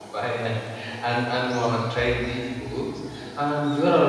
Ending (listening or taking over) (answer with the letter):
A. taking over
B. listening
B